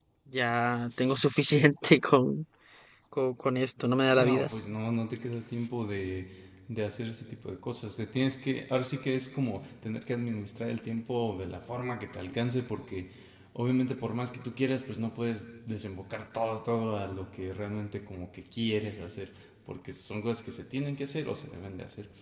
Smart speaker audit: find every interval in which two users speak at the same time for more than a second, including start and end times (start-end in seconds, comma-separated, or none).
none